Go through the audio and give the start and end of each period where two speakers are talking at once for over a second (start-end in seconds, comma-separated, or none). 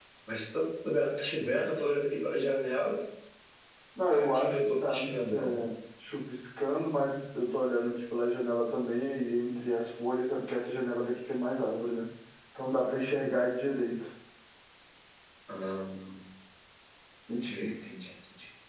4.1-5.7